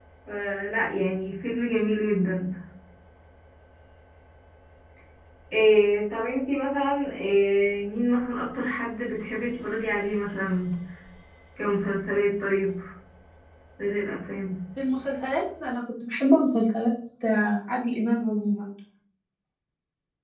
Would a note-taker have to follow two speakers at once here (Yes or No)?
No